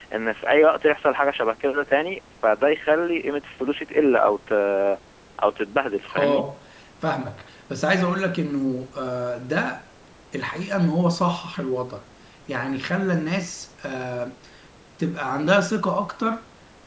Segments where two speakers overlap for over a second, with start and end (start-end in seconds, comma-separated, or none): none